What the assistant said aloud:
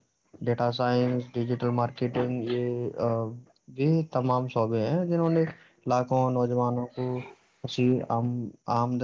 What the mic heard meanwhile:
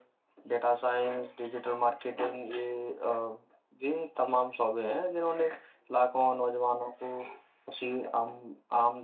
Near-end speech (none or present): none